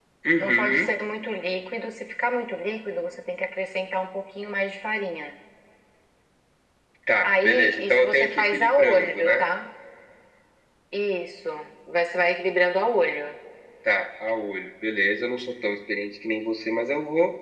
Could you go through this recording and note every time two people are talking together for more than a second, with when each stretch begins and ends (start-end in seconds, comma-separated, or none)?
7.2-9.4